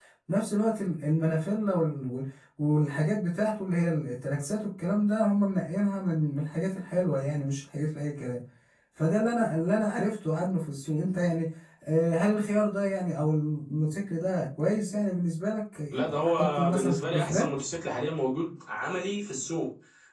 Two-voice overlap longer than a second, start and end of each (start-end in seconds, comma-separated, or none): 15.9-17.5